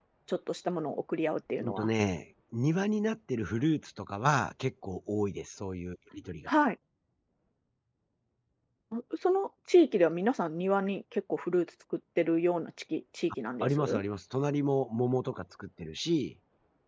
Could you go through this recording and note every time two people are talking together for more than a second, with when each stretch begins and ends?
none

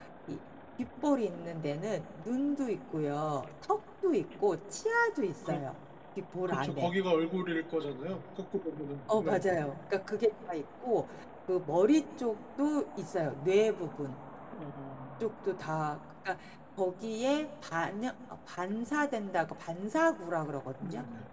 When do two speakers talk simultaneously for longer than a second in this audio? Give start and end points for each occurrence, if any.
none

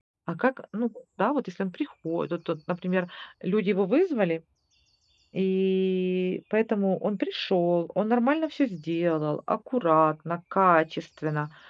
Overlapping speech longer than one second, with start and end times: none

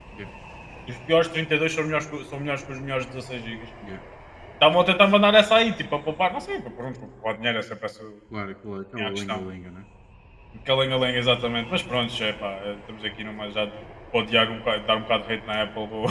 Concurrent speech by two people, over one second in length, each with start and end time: none

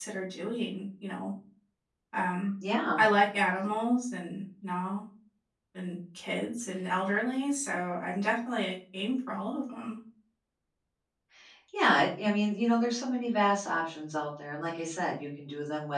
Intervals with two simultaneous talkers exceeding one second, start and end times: none

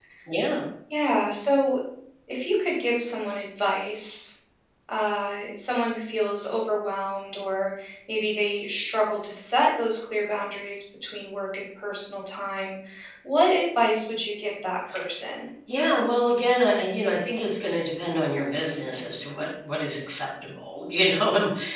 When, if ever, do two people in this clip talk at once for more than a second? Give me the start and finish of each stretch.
none

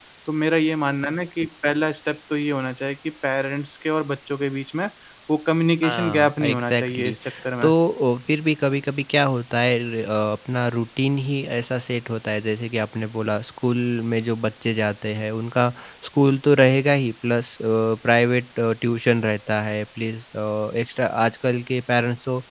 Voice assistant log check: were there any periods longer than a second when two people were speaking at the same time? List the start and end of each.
5.8-7.2

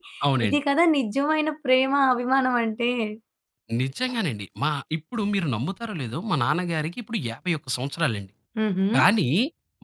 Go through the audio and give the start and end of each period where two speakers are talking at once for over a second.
none

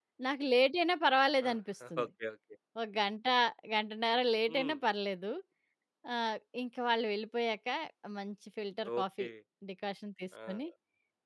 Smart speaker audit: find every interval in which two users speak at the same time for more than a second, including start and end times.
none

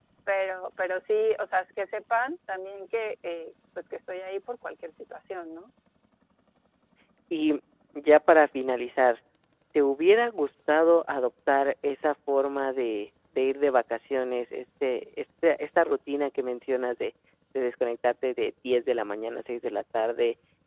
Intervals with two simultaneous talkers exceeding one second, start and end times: none

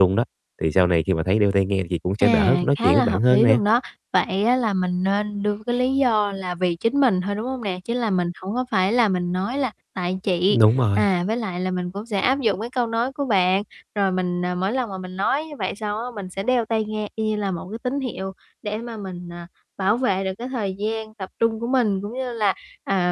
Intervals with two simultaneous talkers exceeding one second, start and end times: 2.2-3.6

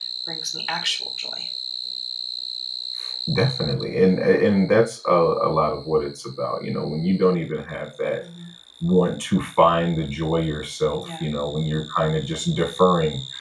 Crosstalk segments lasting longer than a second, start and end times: none

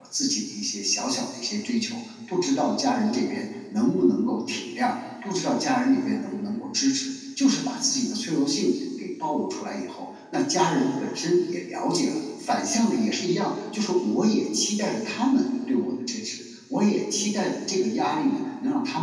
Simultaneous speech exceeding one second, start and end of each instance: none

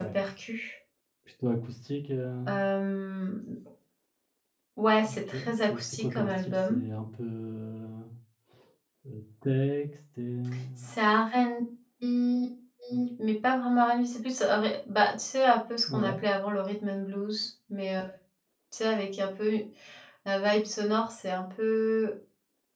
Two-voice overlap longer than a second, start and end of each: 5.0-6.8

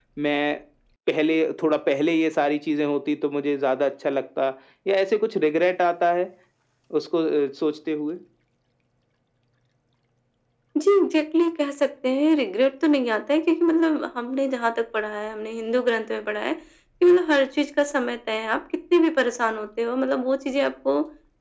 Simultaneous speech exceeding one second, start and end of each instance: none

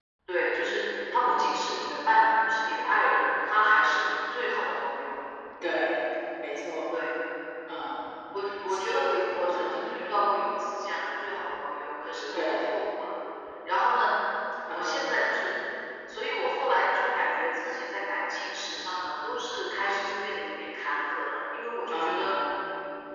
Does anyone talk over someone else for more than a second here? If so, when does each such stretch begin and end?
none

